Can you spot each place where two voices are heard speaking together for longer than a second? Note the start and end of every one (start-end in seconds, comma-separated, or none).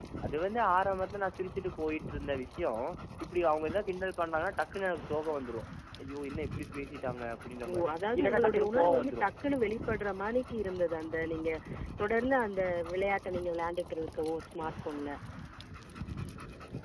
7.7-9.3